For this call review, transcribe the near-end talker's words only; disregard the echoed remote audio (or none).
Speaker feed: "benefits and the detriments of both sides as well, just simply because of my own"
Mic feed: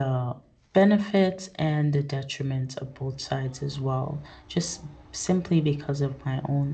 none